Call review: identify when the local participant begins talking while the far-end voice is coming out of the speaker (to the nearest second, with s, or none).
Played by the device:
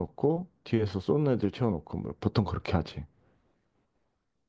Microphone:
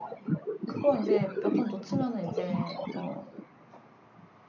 1 s